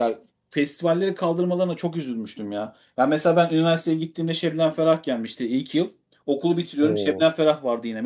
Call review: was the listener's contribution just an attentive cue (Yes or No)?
Yes